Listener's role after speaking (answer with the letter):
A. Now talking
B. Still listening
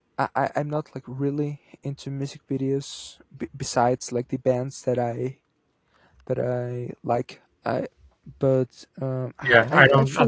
A